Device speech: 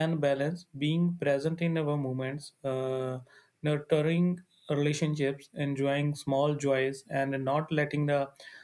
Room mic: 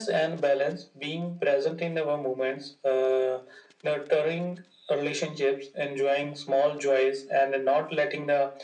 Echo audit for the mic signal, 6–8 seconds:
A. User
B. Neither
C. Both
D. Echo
D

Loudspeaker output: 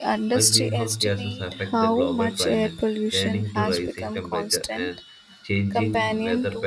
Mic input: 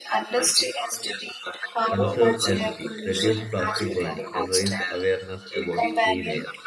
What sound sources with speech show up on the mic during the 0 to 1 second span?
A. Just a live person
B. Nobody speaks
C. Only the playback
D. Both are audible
C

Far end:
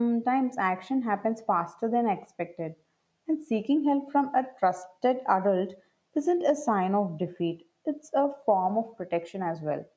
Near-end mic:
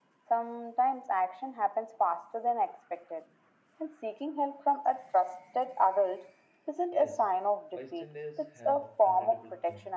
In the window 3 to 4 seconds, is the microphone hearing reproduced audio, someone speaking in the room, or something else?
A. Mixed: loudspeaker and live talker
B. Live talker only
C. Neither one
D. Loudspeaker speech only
D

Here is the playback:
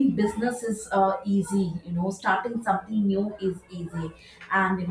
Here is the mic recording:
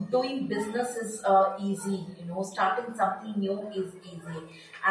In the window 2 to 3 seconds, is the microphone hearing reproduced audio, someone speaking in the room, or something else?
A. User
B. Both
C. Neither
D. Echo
D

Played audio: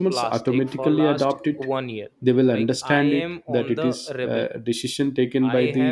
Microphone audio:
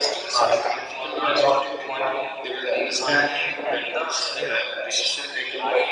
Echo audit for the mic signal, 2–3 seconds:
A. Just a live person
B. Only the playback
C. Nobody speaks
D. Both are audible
B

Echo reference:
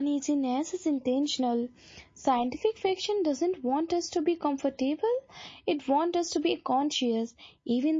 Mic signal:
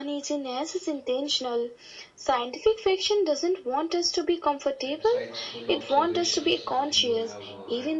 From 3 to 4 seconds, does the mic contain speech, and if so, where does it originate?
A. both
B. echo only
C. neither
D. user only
B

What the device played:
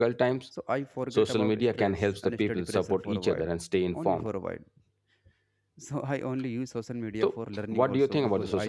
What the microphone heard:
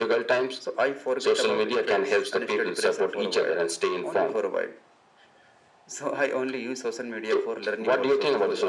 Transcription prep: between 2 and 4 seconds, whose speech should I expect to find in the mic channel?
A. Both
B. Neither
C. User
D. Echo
D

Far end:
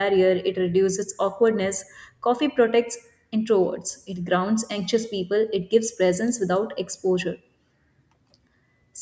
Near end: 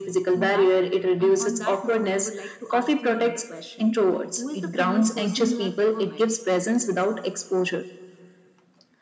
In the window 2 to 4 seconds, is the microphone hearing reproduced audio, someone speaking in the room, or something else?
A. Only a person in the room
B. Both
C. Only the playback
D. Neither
B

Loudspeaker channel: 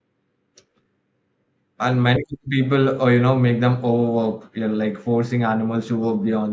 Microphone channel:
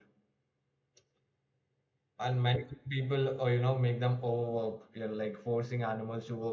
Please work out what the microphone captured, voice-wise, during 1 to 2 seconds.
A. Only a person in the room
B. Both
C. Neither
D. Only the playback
C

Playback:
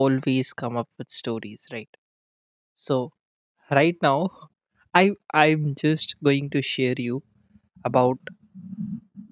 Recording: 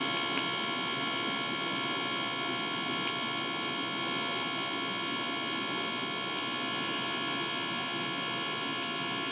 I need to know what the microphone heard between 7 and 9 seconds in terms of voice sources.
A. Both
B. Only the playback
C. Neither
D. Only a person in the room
C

